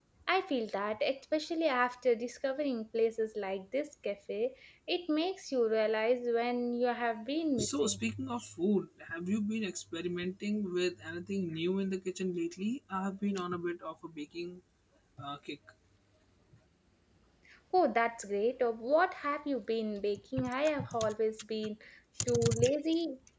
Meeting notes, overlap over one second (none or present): none